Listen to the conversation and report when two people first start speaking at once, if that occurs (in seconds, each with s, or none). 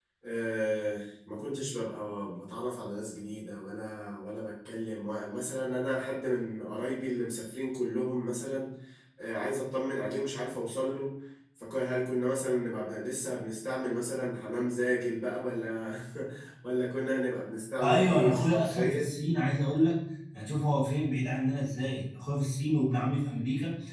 17.8 s